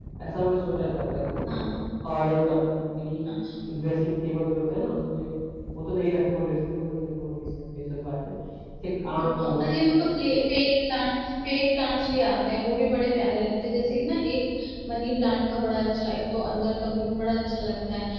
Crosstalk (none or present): none